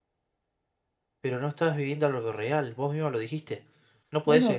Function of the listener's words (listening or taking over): taking over